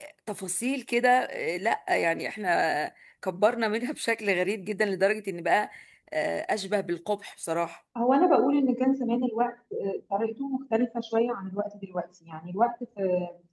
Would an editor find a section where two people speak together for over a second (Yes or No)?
No